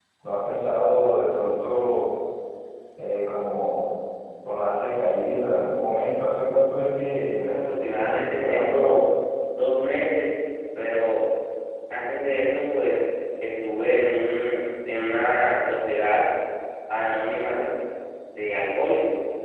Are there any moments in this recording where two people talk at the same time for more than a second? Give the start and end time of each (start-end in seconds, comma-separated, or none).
7.4-8.9